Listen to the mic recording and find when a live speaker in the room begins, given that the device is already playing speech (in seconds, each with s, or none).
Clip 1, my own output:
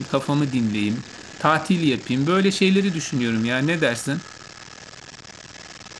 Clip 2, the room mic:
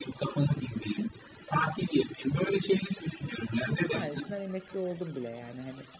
3.6 s